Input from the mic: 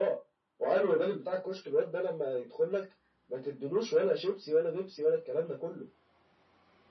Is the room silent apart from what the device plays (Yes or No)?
Yes